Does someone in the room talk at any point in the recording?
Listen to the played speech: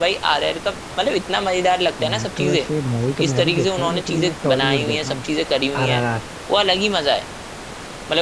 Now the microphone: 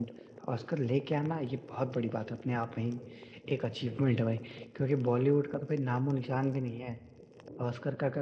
Yes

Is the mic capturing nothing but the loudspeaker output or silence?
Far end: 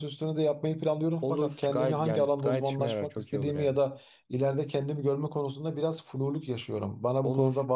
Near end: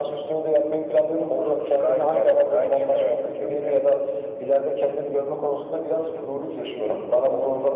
Yes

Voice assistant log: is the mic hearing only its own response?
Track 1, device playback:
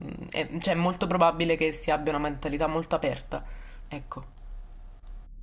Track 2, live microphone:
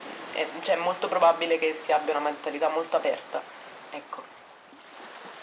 Yes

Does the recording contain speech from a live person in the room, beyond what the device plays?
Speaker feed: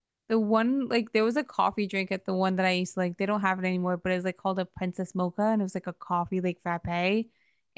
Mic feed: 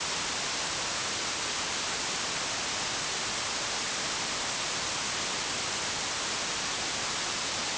No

